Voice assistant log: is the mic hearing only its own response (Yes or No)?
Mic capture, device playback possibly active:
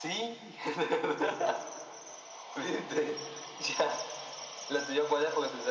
Yes